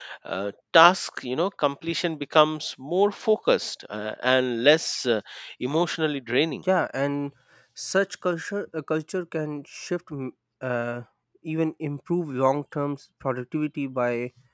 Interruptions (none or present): none